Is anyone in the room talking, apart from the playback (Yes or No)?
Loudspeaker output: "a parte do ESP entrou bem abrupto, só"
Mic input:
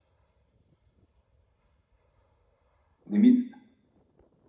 Yes